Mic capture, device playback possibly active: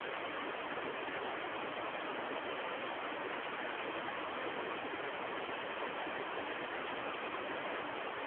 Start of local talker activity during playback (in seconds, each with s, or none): none